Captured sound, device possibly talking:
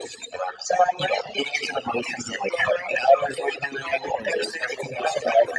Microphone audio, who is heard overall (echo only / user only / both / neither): echo only